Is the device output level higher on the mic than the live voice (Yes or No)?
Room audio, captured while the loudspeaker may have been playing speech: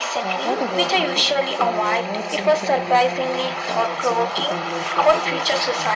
Yes